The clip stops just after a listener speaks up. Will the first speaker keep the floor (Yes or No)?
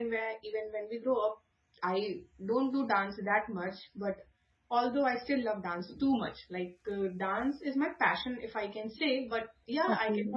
Yes